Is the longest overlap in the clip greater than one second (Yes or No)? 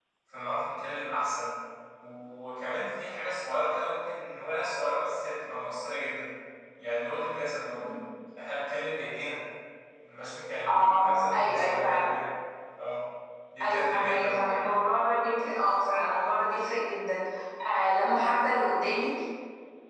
Yes